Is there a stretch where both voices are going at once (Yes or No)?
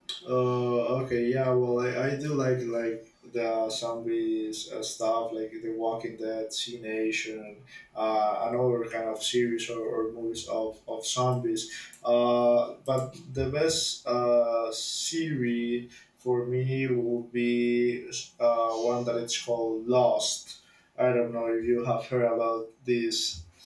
No